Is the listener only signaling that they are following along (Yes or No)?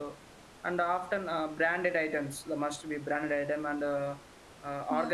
Yes